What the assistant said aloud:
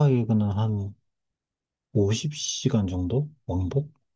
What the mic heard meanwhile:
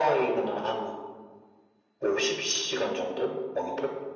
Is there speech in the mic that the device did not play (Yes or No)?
No